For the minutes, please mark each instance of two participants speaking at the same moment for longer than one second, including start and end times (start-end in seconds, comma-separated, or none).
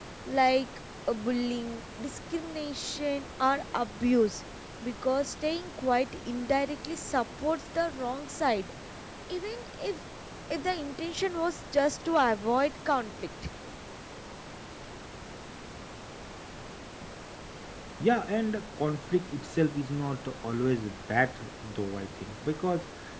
none